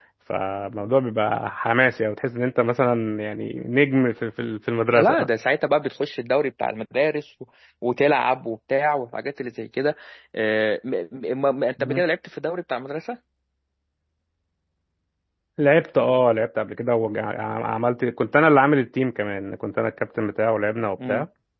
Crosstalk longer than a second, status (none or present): none